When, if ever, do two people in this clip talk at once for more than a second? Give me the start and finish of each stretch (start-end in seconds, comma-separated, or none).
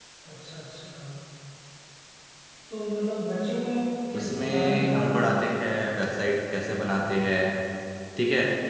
4.1-5.4